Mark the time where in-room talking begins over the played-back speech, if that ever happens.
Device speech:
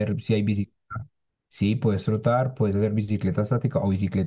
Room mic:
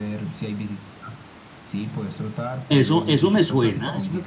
3 s

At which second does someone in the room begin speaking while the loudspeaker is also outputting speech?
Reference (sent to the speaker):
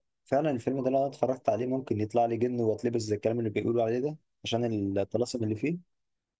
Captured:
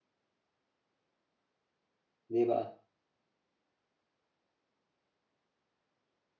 2 s

